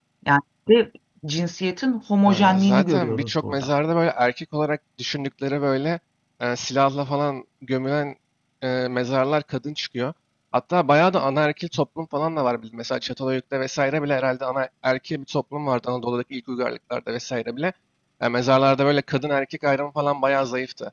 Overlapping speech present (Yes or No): Yes